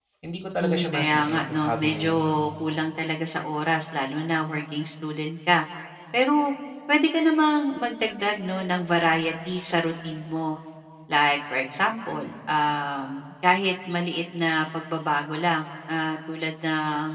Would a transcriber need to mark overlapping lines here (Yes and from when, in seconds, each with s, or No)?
Yes, from 0.6 s